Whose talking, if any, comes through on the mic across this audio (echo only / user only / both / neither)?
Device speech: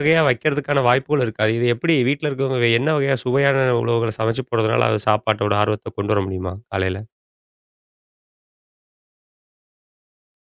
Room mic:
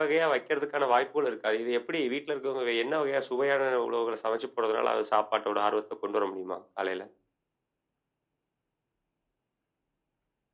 echo only